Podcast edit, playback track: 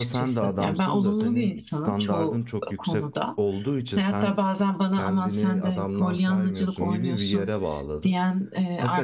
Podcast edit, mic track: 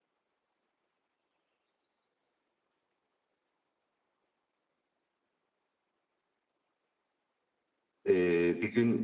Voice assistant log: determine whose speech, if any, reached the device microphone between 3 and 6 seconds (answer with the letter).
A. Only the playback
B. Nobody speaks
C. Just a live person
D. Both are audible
B